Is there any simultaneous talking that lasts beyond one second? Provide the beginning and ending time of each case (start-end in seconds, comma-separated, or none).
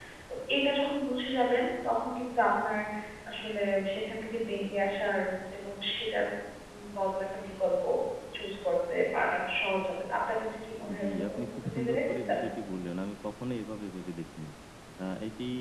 11.0-12.4